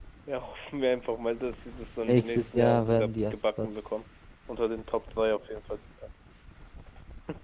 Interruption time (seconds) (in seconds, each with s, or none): 2.1 s